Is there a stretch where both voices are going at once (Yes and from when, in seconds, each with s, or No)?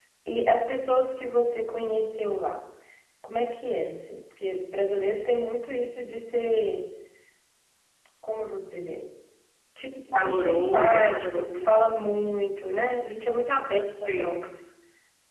Yes, from 10.2 s